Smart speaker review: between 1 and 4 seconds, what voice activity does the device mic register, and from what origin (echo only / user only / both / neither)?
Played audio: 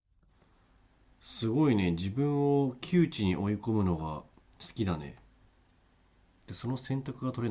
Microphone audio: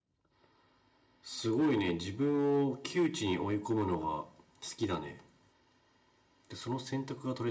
echo only